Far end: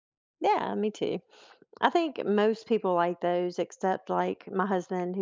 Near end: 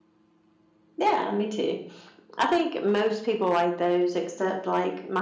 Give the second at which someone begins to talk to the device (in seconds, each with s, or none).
none